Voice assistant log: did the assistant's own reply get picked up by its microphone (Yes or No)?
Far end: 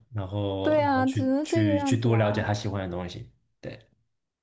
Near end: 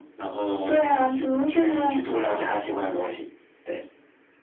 Yes